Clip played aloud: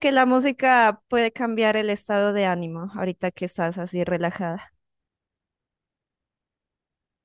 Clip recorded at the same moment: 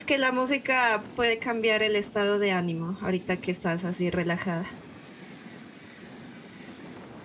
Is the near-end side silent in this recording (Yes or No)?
Yes